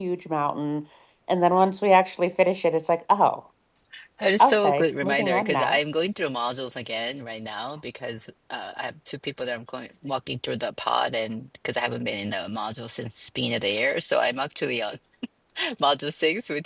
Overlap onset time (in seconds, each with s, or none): 4.4 s